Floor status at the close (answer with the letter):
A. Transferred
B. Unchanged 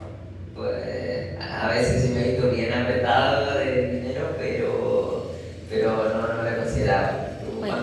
A